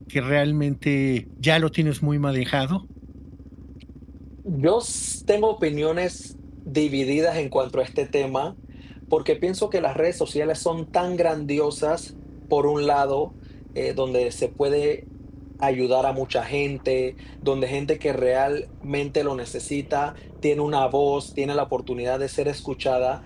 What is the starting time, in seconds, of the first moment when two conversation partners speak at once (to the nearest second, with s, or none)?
none